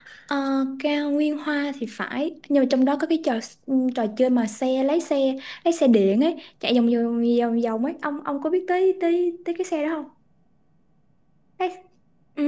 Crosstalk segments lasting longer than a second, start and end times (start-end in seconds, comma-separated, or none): none